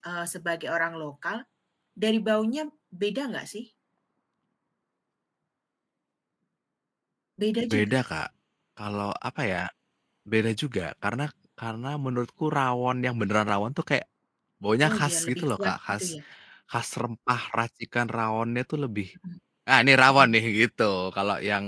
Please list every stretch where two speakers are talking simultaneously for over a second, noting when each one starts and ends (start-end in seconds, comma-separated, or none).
14.8-16.1